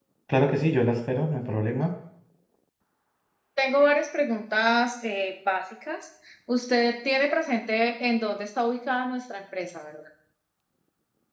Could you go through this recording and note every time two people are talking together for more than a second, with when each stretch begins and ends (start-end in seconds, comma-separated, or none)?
none